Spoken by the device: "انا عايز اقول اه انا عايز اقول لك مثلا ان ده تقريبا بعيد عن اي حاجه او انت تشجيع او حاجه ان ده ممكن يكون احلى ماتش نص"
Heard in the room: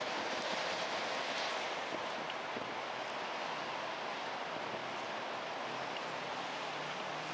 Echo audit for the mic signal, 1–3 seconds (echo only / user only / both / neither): neither